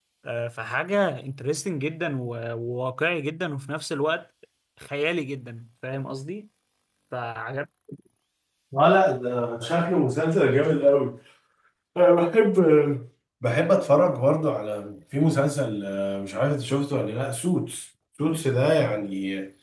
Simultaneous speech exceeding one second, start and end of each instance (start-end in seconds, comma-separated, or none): none